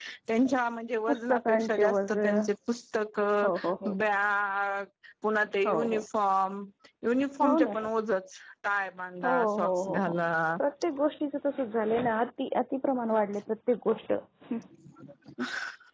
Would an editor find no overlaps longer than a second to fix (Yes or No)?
No